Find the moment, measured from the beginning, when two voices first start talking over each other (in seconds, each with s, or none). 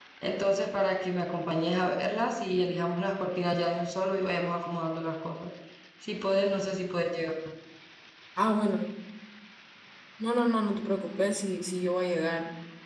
none